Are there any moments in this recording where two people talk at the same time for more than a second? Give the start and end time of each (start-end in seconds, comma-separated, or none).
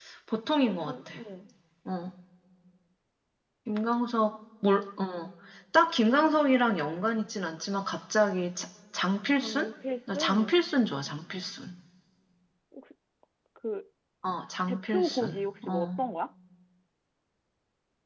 14.7-16.0